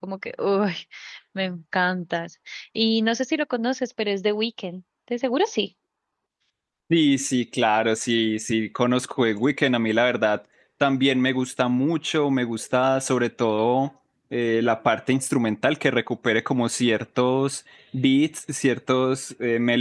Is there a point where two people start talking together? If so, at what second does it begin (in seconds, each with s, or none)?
none